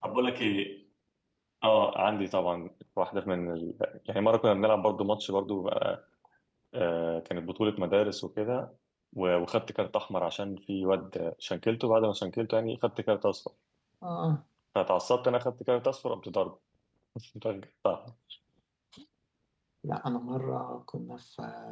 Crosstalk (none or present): none